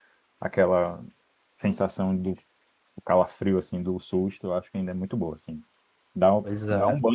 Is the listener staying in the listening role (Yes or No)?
Yes